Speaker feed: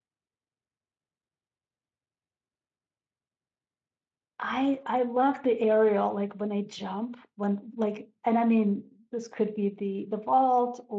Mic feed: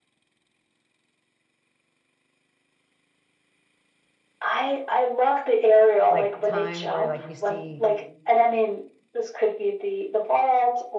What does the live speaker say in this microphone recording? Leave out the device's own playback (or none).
like time where like you see